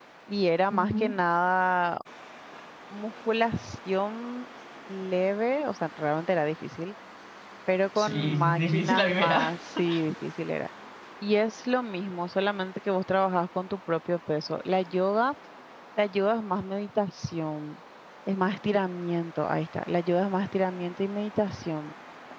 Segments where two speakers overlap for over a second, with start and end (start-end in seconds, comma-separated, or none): 8.0-9.5